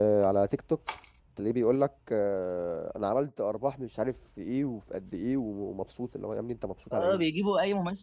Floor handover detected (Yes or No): Yes